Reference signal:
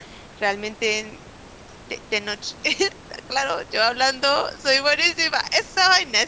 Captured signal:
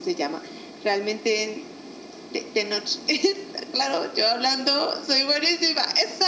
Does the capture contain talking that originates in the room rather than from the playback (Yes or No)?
No